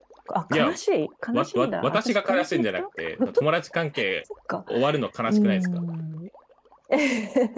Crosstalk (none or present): present